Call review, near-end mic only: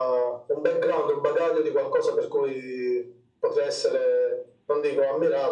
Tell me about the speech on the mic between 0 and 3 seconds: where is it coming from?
echo only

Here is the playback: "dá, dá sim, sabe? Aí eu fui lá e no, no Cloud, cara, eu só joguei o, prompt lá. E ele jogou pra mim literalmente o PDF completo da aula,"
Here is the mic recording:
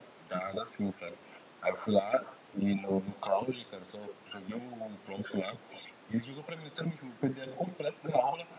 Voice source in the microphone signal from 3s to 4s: echo only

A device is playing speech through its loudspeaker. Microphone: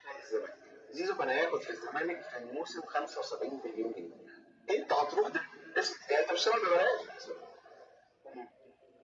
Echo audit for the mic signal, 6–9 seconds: echo only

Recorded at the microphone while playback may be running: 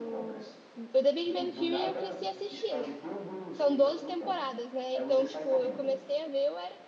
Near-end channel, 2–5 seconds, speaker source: both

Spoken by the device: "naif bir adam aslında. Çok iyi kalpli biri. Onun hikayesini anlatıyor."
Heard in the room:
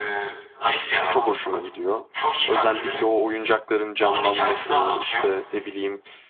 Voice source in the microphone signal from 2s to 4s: both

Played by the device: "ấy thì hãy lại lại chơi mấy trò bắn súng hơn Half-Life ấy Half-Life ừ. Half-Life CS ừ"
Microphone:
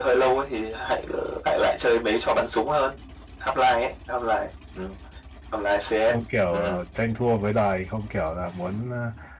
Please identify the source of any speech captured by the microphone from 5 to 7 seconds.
both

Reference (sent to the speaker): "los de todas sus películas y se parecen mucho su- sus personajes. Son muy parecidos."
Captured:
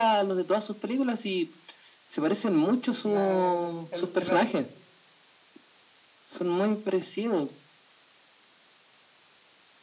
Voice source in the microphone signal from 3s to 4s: both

